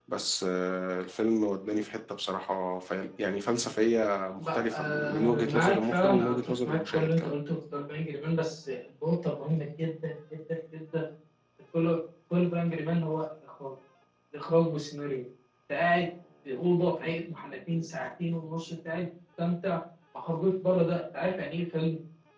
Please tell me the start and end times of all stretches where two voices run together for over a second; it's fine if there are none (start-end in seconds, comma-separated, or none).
4.4-7.3